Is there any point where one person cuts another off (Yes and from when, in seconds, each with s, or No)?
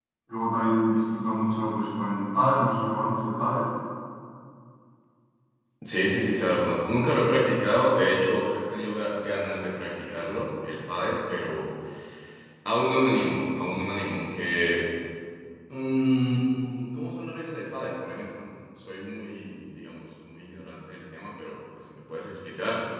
No